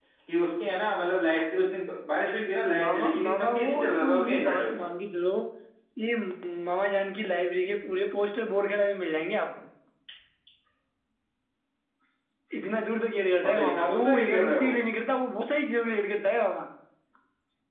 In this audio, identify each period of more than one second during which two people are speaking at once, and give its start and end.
2.8-4.8, 13.4-14.7

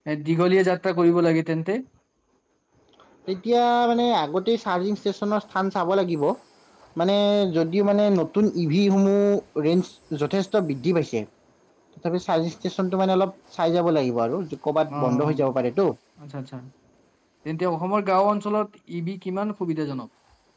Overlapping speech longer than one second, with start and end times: none

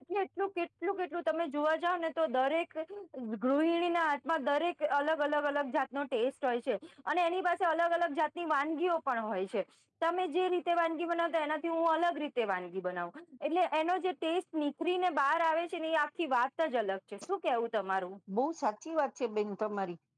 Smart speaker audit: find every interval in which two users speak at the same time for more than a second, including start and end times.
none

